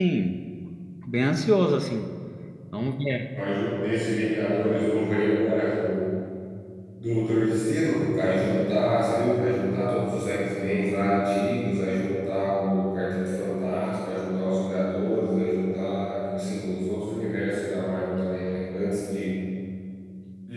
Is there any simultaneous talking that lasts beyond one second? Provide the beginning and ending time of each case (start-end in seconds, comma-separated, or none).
none